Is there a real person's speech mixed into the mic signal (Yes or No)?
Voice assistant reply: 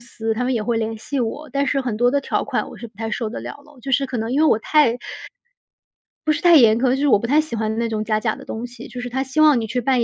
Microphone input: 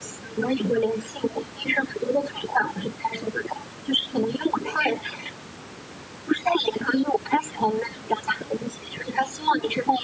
No